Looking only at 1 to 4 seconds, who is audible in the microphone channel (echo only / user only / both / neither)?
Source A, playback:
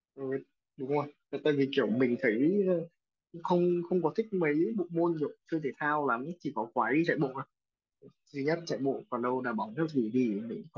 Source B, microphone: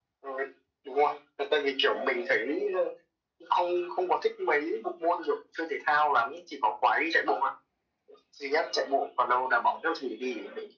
echo only